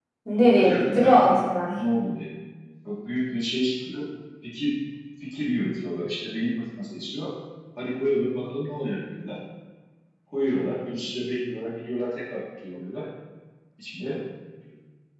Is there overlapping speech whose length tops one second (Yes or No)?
Yes